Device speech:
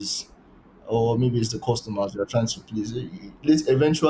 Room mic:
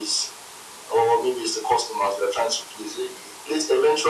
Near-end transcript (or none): none